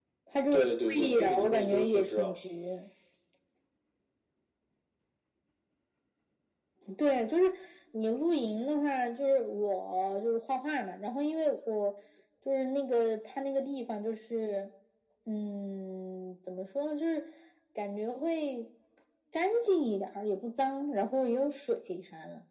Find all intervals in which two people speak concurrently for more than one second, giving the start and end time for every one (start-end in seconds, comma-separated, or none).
0.5-2.4